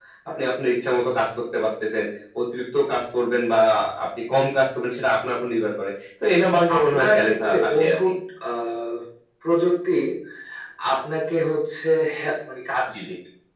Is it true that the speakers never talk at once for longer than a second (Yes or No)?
No